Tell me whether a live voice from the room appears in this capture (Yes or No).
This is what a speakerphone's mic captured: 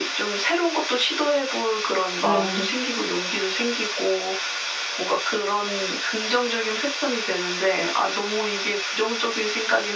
Yes